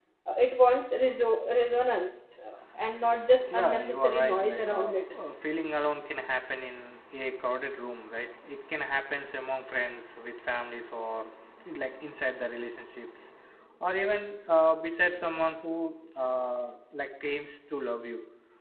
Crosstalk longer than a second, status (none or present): present